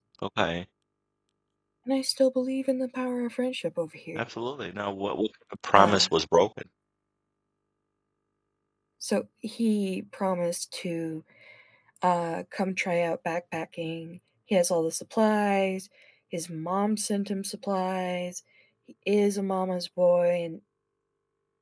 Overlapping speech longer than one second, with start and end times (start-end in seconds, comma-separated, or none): none